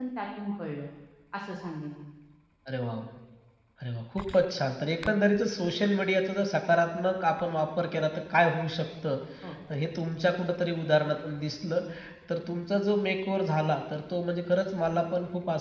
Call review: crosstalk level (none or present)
none